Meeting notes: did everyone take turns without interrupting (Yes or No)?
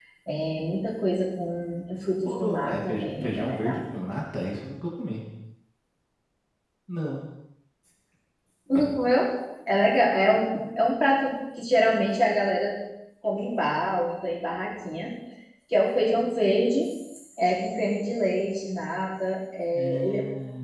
No